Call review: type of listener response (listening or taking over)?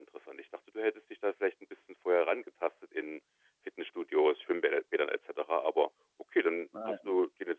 listening